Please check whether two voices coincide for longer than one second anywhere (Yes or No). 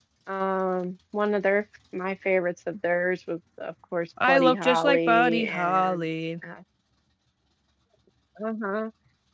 Yes